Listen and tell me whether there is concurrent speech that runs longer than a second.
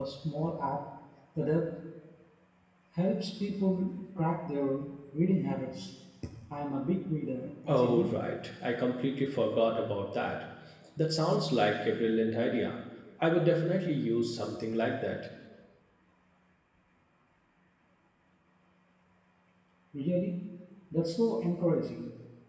No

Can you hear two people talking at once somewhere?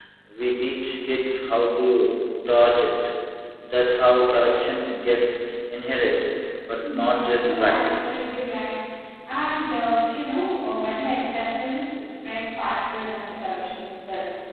Yes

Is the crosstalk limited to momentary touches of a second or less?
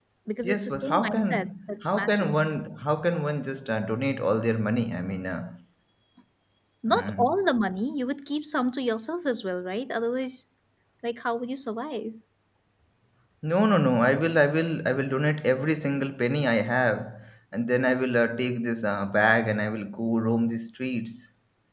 No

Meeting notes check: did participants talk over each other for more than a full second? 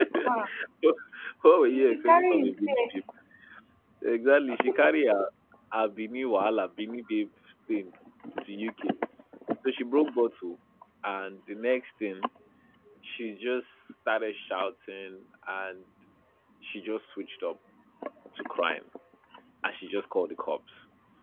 Yes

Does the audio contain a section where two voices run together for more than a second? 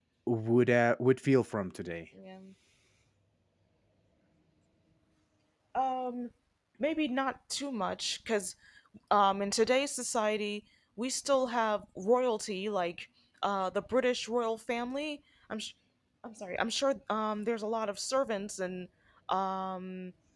No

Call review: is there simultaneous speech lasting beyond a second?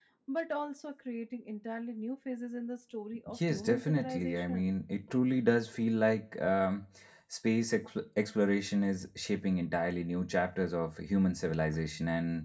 Yes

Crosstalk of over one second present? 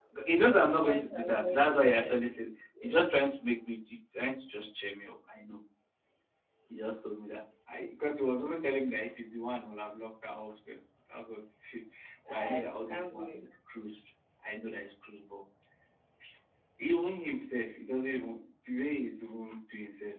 Yes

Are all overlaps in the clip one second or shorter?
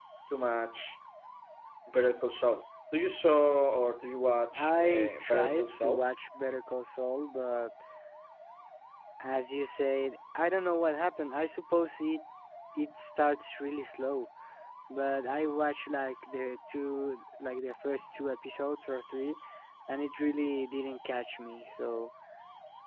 No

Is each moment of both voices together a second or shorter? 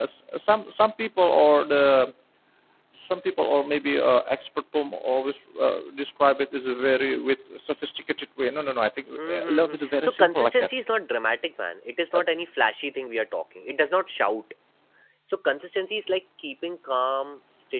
No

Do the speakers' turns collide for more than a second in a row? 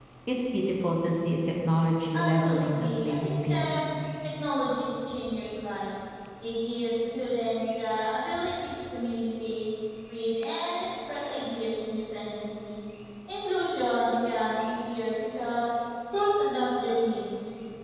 Yes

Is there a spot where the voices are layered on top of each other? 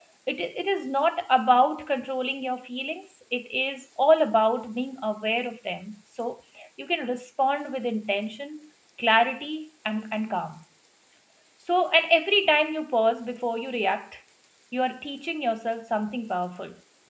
No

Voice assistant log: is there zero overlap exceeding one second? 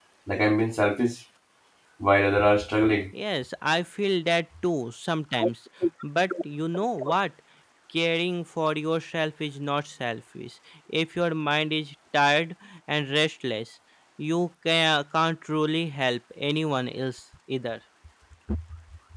Yes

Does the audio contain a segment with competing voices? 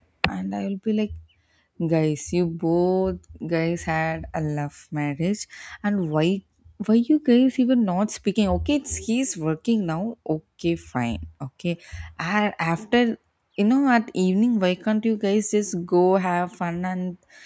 No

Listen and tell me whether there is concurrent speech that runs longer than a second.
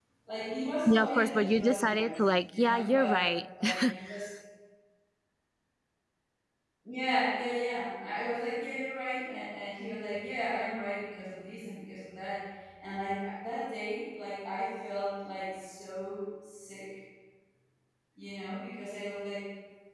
Yes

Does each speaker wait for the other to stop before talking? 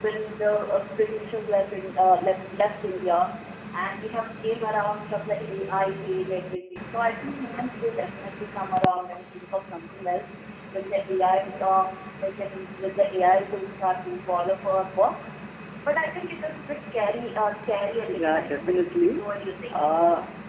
No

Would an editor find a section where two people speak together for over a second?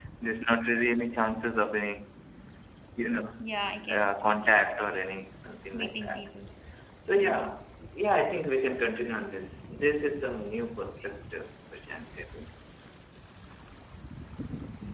No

